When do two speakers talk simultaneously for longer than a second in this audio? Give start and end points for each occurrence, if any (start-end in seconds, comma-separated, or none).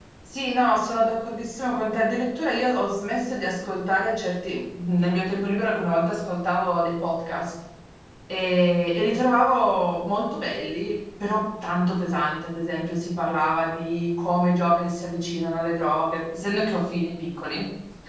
none